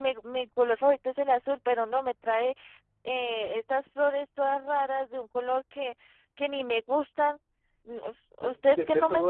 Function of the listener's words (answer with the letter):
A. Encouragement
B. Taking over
B